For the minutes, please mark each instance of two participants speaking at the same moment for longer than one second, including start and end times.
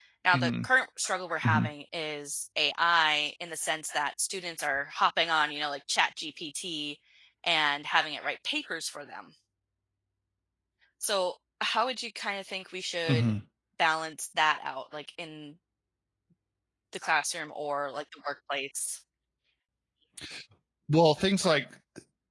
none

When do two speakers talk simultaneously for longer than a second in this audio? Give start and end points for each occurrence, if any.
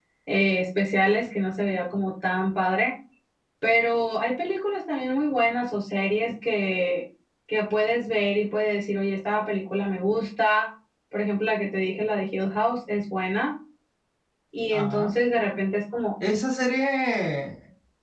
none

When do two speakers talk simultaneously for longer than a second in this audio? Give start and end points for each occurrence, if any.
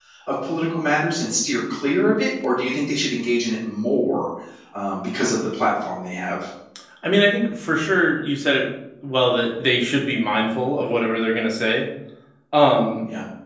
none

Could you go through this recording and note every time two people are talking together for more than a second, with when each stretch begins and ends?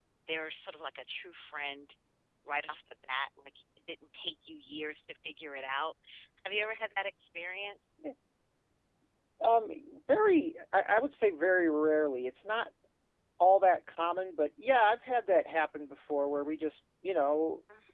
none

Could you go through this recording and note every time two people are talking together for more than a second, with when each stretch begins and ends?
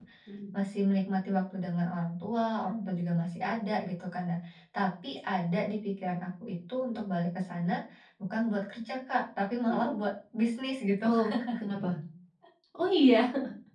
none

